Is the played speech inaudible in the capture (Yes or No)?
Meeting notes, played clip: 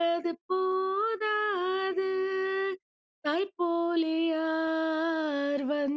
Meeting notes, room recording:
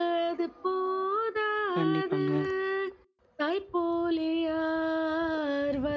No